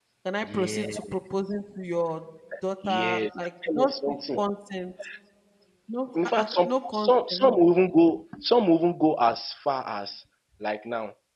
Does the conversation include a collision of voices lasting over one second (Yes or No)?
Yes